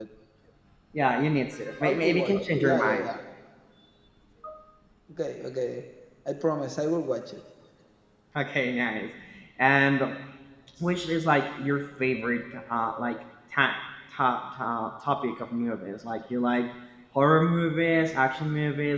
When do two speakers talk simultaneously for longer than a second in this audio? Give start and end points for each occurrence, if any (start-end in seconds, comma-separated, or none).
1.8-3.1